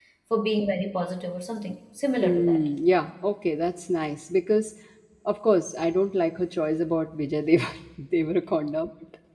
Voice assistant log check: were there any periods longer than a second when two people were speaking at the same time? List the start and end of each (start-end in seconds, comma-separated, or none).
none